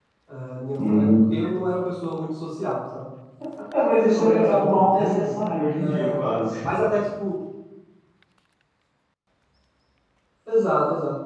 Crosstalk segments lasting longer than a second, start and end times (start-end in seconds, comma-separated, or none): 3.7-5.3